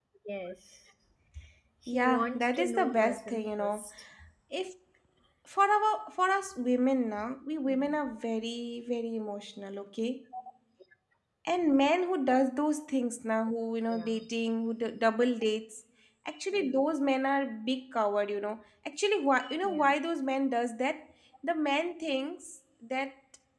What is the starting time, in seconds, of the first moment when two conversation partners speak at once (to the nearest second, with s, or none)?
2 s